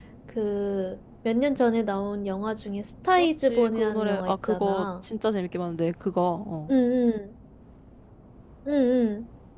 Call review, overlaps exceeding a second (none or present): present